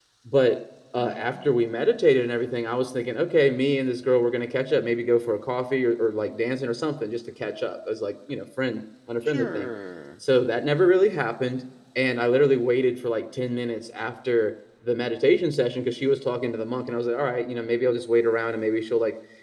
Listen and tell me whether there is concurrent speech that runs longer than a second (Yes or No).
No